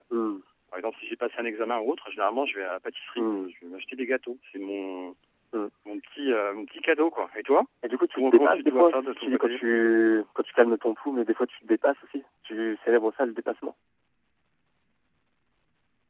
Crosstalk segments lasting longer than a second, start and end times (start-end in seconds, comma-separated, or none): 8.1-9.6